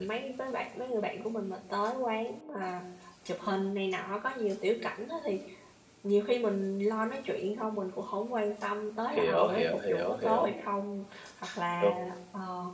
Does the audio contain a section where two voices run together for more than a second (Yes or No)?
Yes